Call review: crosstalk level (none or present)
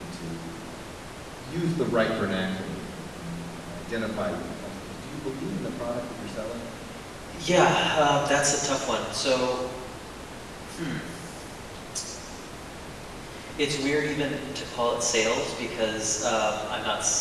none